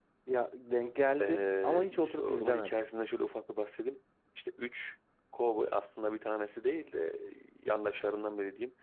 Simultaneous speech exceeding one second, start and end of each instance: 1.2-2.8

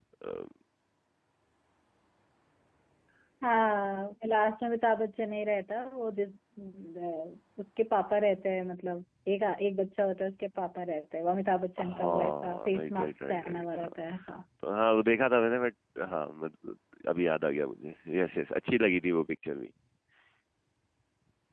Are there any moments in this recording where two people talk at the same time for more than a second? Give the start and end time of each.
11.8-13.9

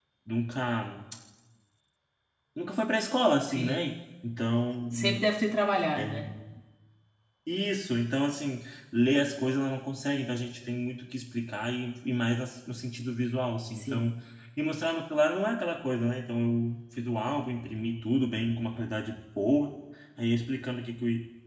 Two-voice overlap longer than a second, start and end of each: none

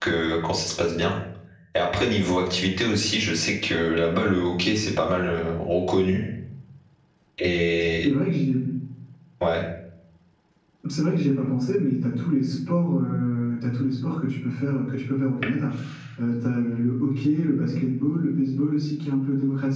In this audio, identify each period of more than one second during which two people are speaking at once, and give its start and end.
none

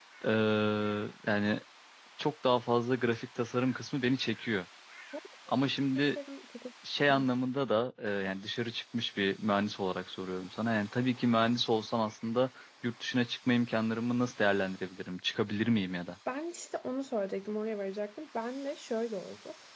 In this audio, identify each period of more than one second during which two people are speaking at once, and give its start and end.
none

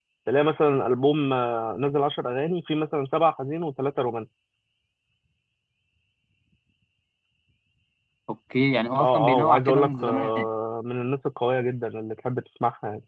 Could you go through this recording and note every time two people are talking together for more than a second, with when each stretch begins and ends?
9.0-10.5

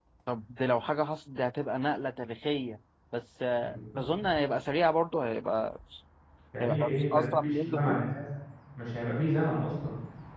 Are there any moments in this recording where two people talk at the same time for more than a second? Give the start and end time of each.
6.6-8.0

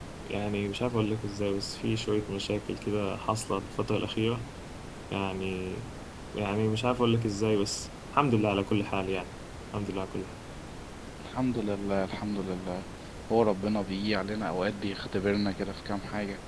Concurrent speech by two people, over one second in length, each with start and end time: none

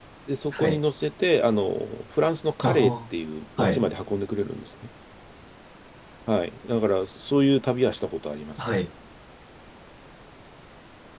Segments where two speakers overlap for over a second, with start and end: none

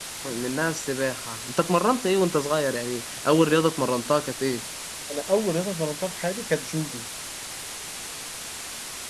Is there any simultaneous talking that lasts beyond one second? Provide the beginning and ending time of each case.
none

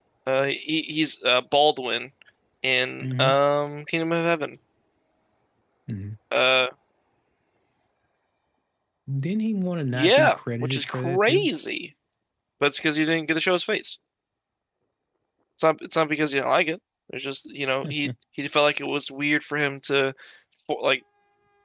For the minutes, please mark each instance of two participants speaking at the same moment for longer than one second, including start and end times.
9.9-11.5

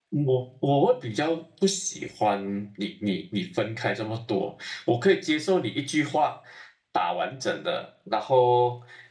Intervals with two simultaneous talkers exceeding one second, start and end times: none

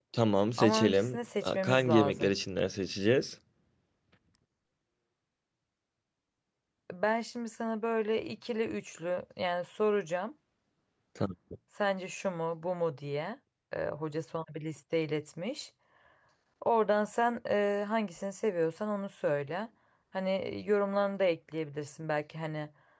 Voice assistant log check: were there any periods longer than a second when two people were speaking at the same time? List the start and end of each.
0.6-2.3

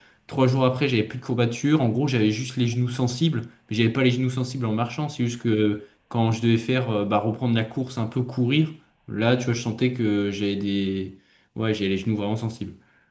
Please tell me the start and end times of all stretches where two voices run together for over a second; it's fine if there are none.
none

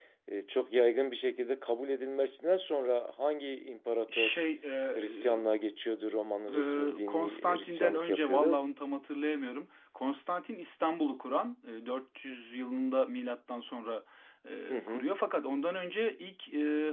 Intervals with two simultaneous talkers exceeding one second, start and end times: 6.5-8.6

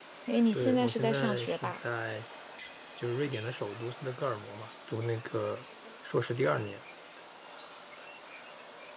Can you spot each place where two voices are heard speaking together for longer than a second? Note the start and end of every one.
0.5-1.8

